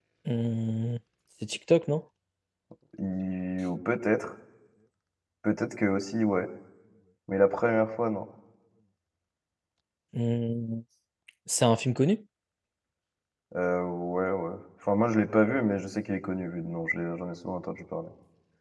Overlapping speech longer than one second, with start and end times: none

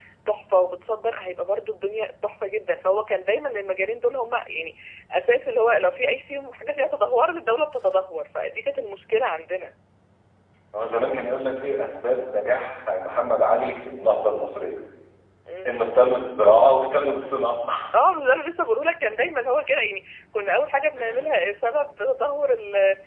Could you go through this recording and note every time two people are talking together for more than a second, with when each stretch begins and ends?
none

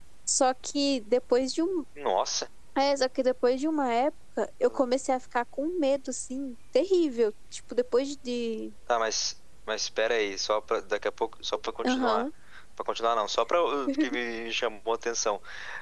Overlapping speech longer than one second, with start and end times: none

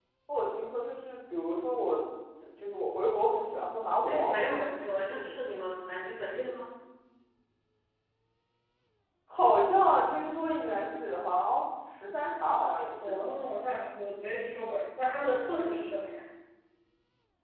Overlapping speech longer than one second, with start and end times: 4.1-5.3

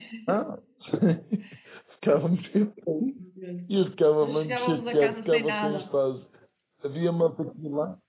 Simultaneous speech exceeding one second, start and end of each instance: 4.2-5.8

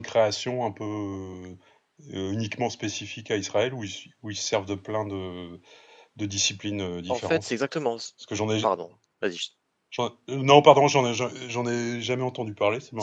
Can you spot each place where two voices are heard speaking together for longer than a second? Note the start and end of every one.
none

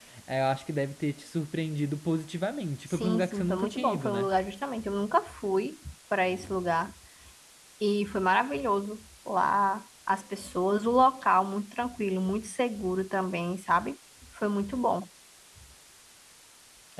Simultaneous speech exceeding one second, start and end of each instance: 2.9-4.3

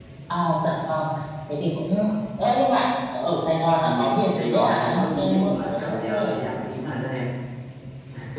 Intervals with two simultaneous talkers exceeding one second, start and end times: 3.8-6.3

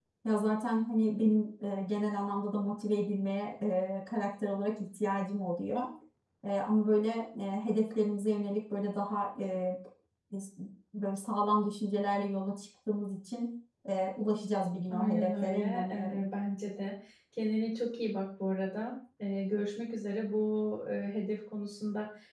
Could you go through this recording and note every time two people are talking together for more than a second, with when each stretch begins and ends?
14.9-16.2

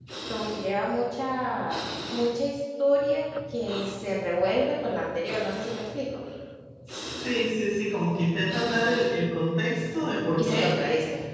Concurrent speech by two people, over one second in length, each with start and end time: none

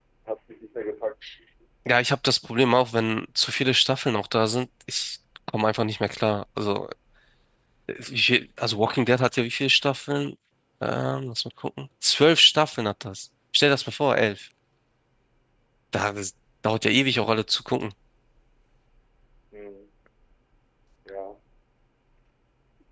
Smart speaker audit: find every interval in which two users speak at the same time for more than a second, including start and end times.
none

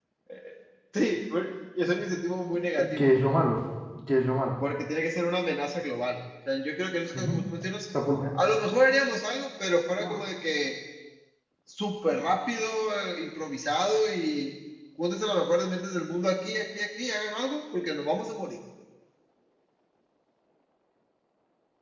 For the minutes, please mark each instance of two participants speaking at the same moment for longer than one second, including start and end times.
none

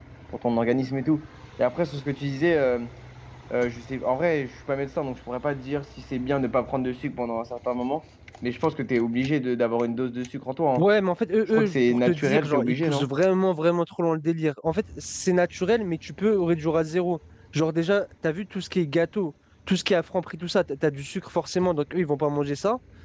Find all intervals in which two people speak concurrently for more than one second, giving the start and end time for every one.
11.5-13.1

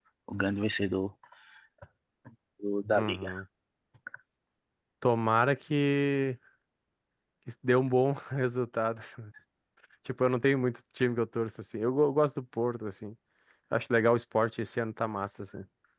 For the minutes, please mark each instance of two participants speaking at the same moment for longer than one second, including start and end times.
none

